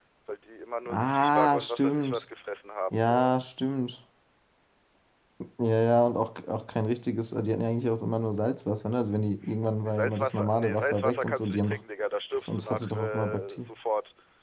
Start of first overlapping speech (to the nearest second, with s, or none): 1 s